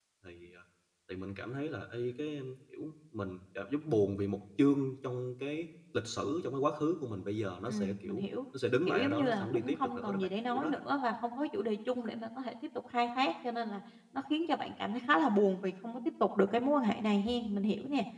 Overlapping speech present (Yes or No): Yes